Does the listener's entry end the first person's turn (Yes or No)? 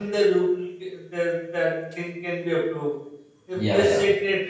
No